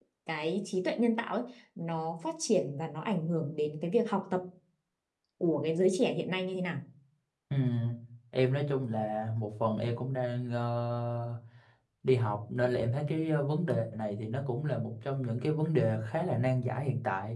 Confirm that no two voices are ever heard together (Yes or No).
Yes